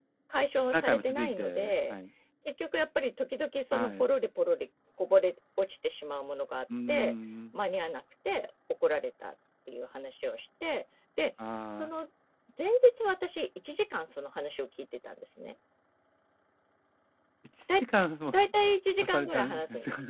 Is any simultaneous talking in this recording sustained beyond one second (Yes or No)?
Yes